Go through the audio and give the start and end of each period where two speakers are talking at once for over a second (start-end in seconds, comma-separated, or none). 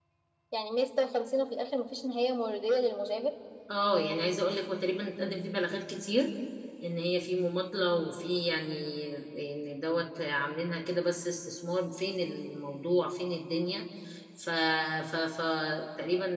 none